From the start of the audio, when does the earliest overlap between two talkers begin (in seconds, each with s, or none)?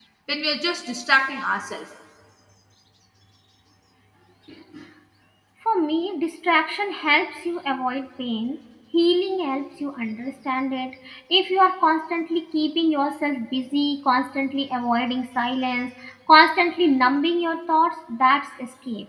none